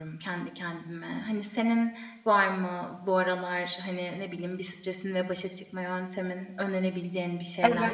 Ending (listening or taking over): taking over